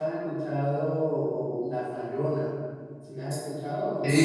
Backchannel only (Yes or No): No